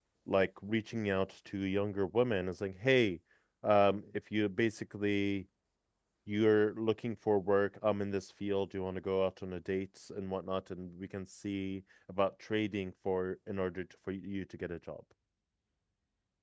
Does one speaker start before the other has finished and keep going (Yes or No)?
No